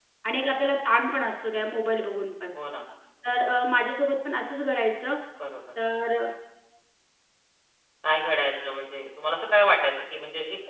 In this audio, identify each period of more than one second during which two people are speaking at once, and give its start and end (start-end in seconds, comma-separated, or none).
none